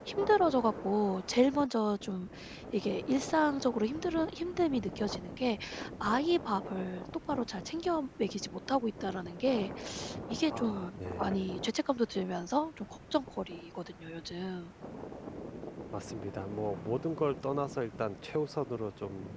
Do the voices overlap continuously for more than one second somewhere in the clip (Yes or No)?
No